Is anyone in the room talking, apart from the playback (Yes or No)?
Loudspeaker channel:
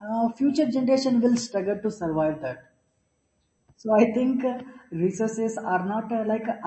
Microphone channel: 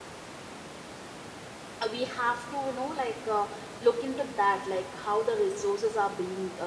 Yes